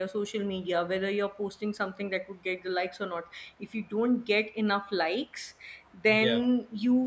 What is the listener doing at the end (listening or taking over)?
listening